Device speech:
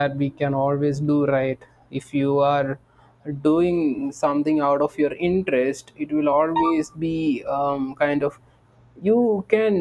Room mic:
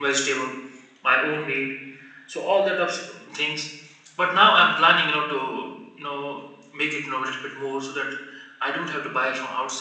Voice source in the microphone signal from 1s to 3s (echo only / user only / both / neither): user only